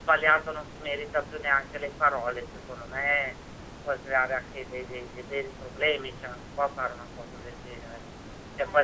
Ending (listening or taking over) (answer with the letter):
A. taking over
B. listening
B